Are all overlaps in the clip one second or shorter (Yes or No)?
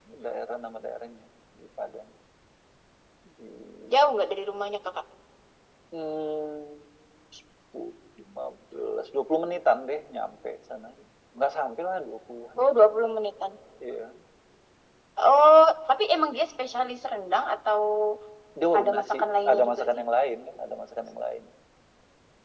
No